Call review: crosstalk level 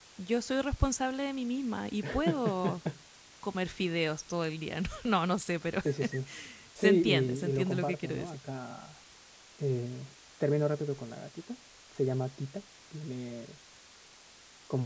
present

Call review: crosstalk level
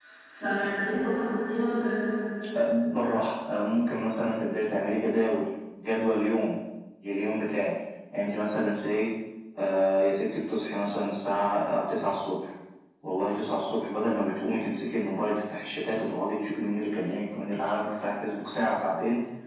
none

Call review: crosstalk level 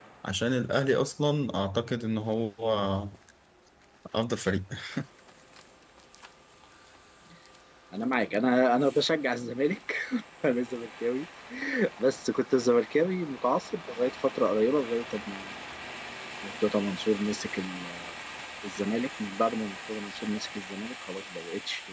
none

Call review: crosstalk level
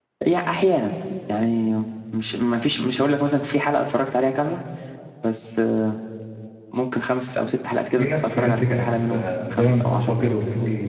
present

